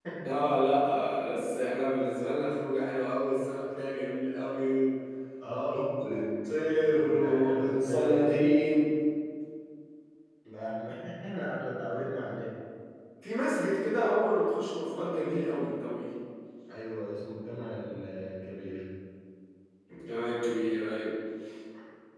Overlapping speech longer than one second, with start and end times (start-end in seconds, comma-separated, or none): 7.0-8.2